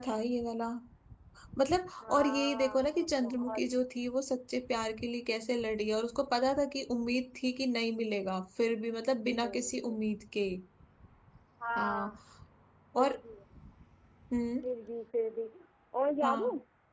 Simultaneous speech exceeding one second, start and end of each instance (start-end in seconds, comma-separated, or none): 2.0-3.6